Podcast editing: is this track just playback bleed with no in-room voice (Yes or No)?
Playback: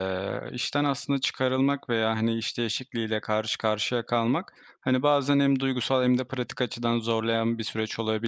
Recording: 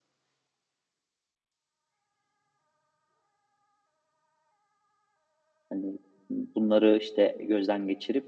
No